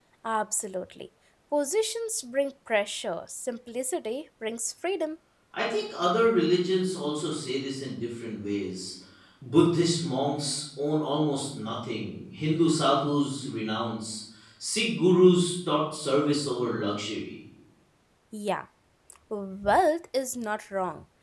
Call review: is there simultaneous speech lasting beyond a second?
No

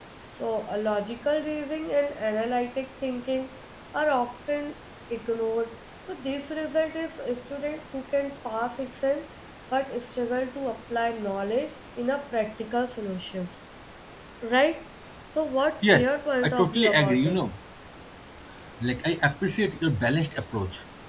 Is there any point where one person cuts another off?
Yes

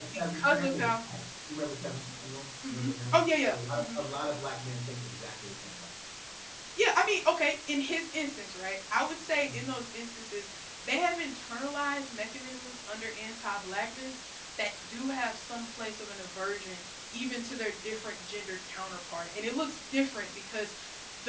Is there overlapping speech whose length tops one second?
Yes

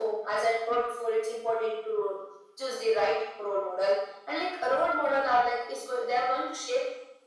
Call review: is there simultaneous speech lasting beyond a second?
No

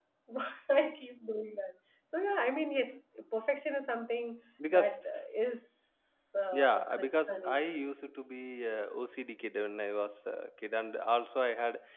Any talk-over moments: Yes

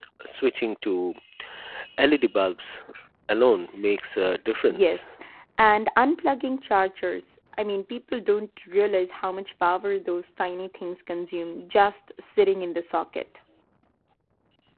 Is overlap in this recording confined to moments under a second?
Yes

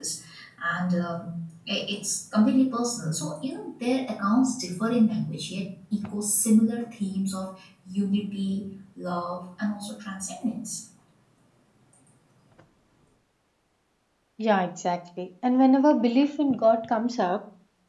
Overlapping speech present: No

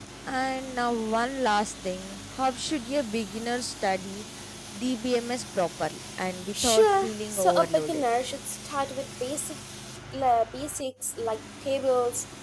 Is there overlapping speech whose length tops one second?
Yes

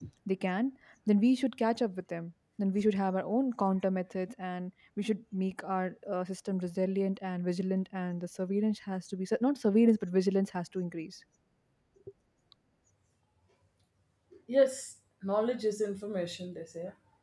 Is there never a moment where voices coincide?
Yes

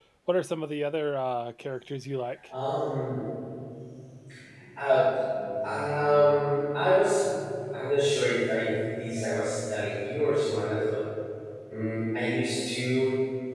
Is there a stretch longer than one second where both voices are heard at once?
No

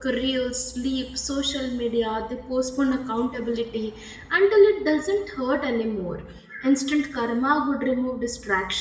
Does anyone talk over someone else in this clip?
No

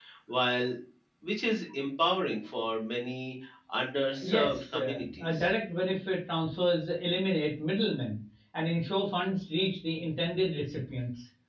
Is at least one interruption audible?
Yes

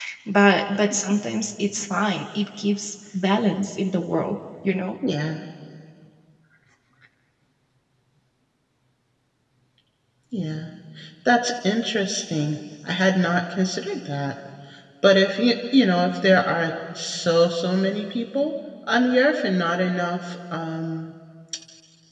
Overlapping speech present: No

